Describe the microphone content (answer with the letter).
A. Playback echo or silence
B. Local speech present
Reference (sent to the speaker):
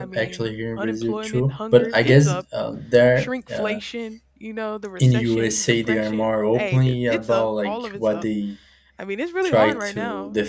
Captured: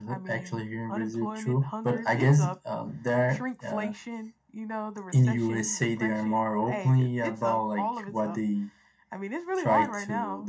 A